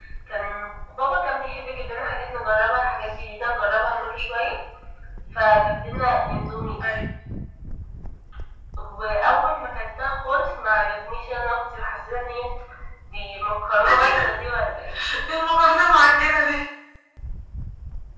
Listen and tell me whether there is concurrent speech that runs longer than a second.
No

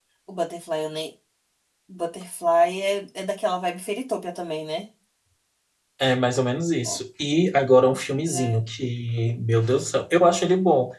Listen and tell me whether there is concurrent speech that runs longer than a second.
No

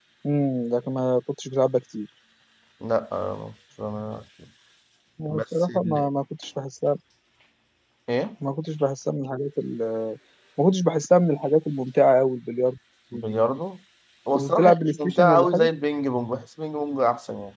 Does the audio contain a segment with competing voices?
Yes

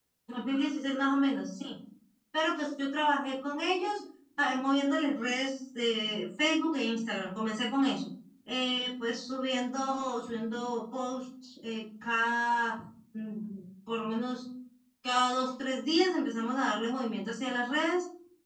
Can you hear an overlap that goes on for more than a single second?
No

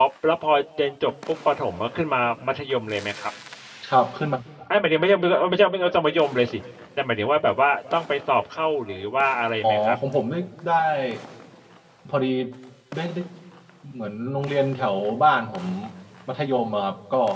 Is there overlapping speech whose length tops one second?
No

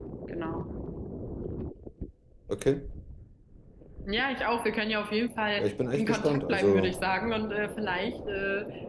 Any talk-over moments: Yes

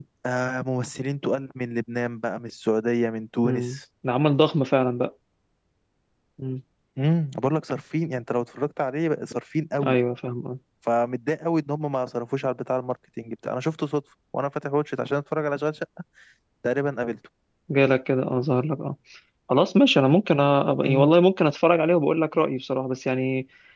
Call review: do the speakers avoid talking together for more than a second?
Yes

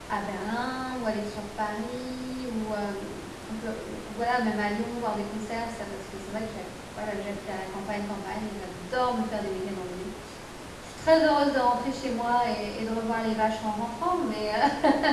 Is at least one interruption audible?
No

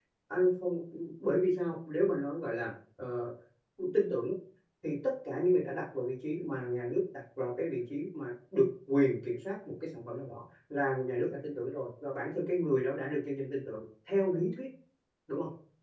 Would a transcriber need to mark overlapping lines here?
No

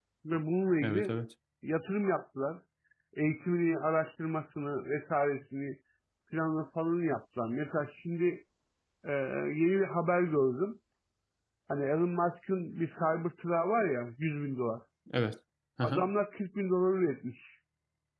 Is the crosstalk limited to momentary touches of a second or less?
Yes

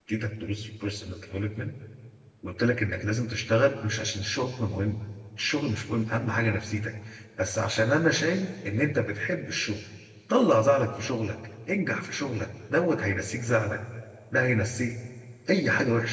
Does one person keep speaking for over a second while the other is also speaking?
No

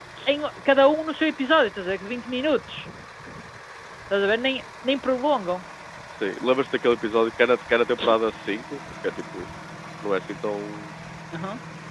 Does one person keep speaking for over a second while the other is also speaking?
No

